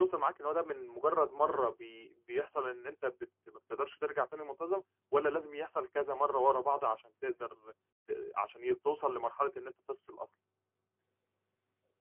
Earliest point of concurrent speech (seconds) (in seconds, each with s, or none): none